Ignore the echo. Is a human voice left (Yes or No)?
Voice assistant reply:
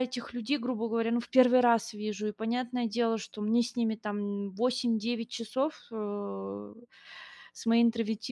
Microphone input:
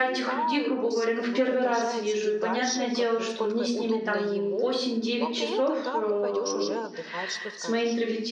Yes